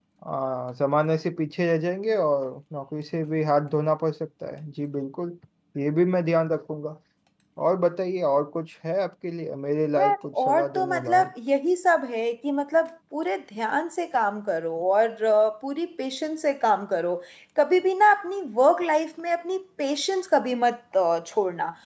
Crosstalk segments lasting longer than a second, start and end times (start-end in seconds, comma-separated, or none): 10.0-11.3